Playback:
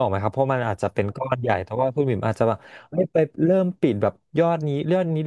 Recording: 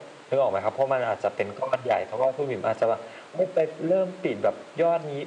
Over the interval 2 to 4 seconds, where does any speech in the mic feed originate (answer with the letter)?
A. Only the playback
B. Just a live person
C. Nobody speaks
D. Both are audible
A